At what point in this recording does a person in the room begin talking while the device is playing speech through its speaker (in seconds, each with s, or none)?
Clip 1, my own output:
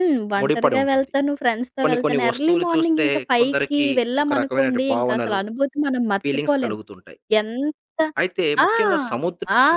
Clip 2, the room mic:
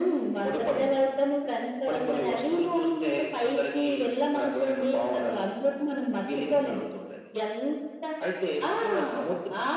none